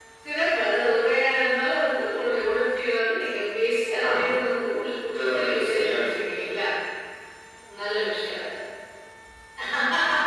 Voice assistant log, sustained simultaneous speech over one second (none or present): present